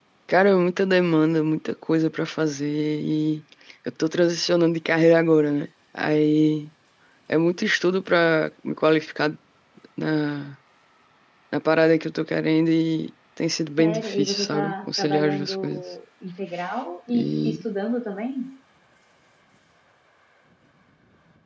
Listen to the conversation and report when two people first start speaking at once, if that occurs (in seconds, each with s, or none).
13.8 s